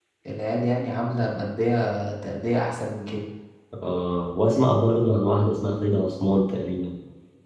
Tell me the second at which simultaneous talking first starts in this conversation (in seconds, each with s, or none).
none